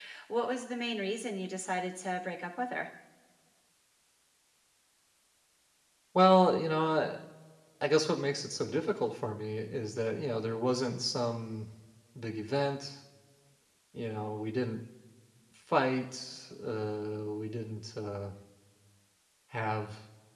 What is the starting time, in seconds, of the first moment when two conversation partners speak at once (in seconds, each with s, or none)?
none